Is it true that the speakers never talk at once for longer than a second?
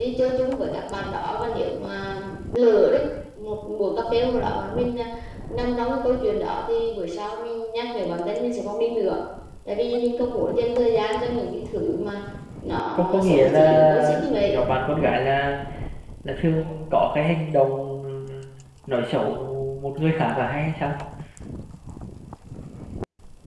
No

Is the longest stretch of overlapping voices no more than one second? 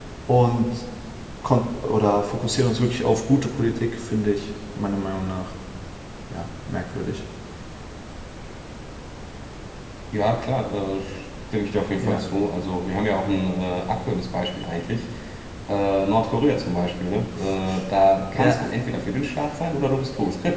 Yes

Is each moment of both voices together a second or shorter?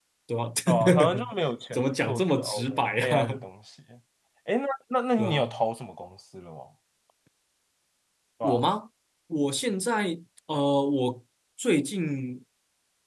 No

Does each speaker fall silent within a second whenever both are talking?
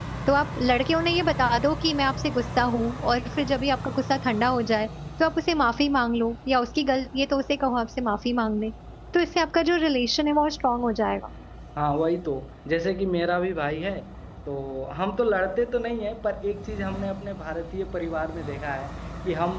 Yes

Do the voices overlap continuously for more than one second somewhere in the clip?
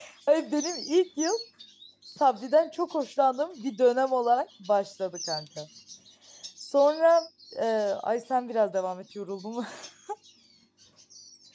No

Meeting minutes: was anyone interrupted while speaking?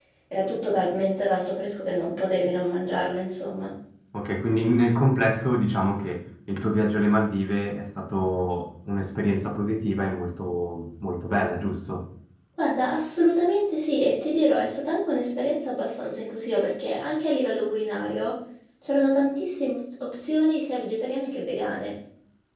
No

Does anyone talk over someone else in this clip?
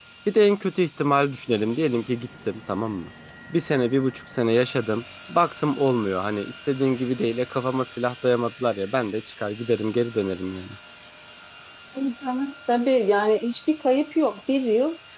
No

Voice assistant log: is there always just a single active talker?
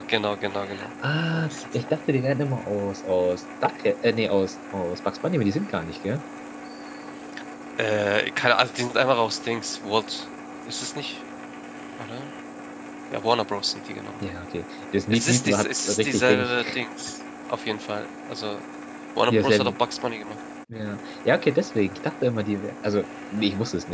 No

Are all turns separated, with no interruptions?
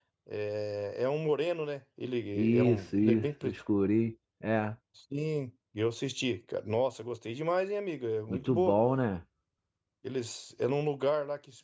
No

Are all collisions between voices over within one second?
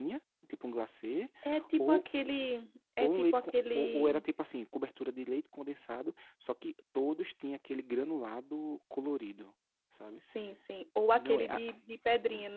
No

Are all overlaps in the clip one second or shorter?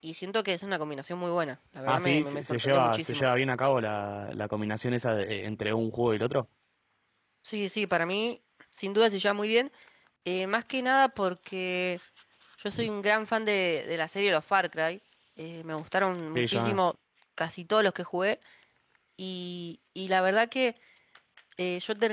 No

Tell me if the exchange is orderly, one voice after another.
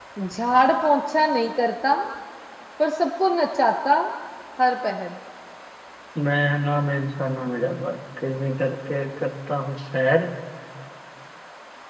Yes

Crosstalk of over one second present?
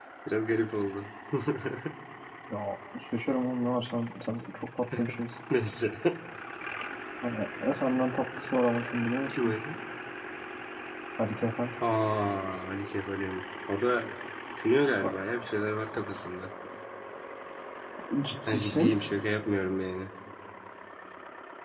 No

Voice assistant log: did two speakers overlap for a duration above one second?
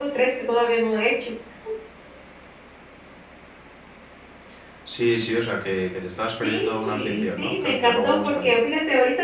Yes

